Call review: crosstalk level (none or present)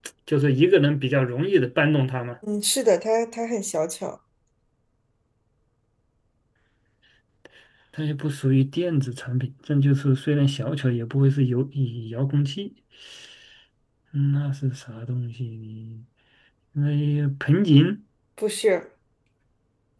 none